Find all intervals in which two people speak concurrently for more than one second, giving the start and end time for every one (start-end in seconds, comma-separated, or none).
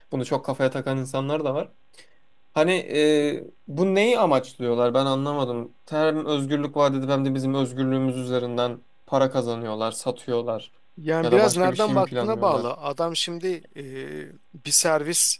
11.2-12.7